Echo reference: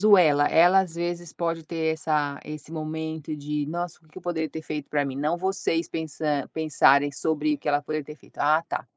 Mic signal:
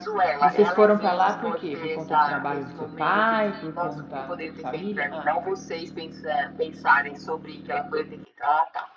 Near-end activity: present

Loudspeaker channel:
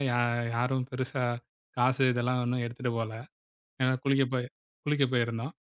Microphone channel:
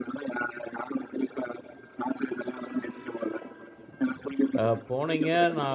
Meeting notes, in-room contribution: present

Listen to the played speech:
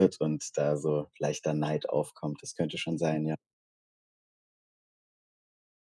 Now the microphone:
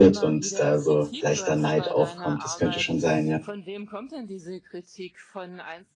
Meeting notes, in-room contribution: present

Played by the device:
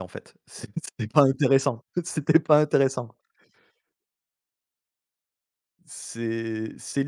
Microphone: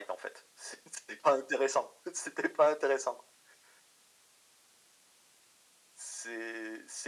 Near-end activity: none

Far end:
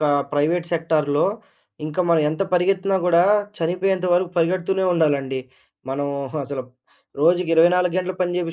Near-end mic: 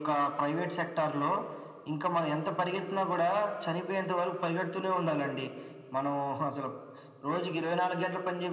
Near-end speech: none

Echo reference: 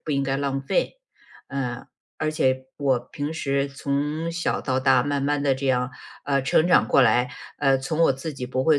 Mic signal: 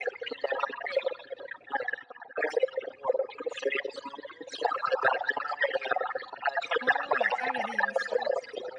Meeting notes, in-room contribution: present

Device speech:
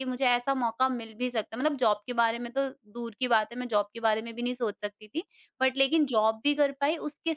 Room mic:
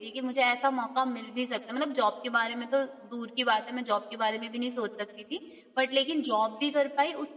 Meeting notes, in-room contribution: none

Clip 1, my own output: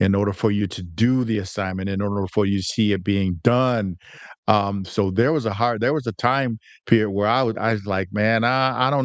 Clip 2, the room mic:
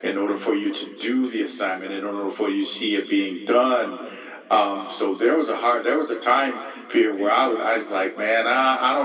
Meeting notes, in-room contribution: none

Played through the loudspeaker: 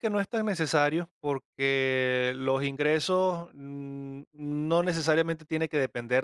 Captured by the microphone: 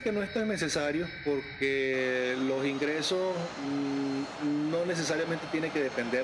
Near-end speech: none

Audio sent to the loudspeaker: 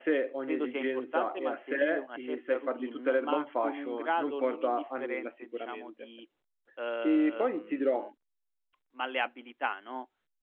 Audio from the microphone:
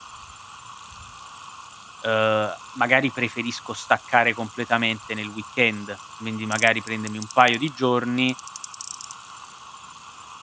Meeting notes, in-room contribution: present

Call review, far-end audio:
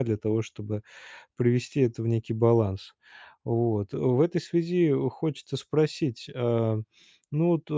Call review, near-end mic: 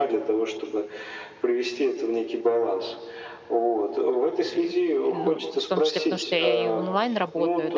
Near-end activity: present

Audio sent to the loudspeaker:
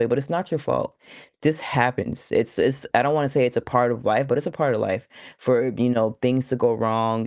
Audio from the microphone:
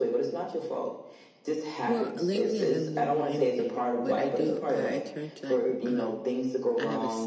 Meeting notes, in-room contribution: present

